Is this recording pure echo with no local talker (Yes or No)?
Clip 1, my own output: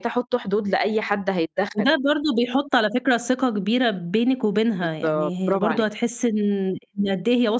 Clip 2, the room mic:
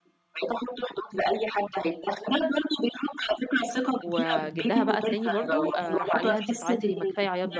No